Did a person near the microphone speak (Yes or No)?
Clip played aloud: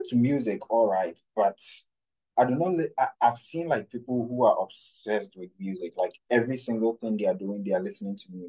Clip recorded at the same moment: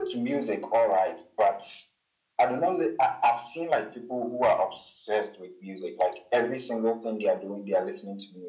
No